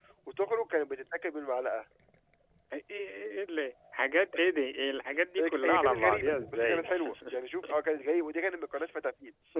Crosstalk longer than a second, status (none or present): present